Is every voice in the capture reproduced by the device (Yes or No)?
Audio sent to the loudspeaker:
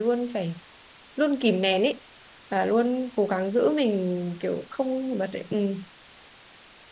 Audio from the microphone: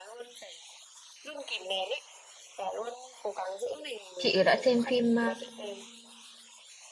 No